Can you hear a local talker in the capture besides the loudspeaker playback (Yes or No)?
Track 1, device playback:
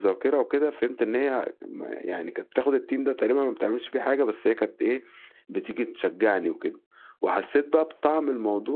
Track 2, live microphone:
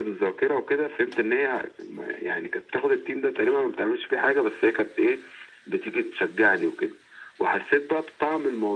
No